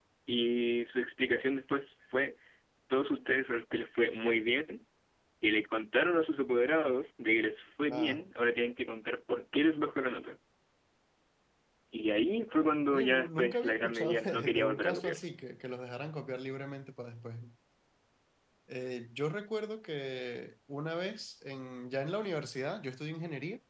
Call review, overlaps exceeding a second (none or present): present